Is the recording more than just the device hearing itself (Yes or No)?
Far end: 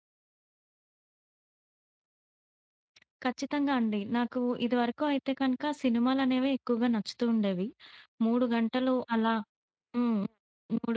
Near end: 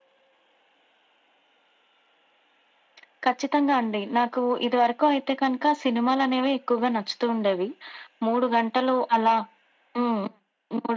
No